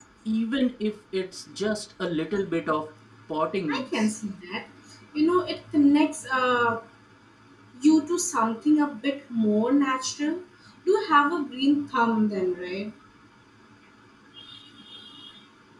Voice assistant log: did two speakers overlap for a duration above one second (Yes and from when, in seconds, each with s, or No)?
No